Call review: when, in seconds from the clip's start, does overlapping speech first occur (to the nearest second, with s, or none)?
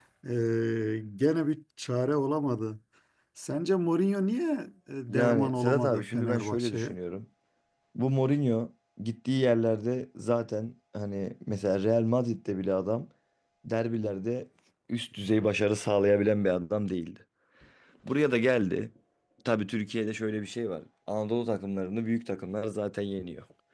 5 s